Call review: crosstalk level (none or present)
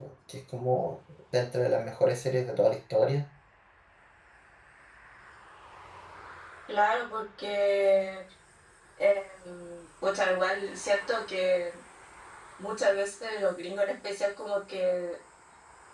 none